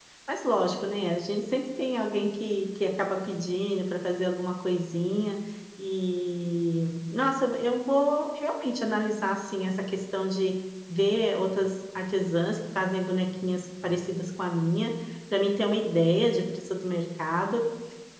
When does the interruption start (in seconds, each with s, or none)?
none